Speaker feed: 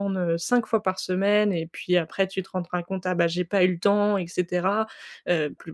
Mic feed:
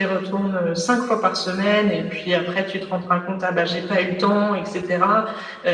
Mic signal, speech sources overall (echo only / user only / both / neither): echo only